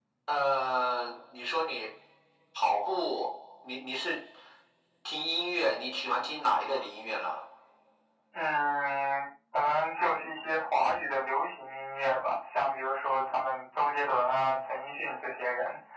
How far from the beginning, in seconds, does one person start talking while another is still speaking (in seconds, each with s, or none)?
none